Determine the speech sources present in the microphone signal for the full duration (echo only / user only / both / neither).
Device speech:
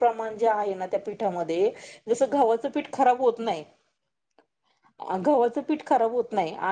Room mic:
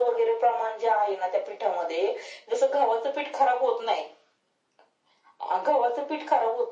echo only